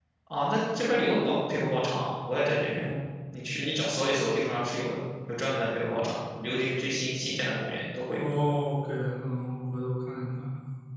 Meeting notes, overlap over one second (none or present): none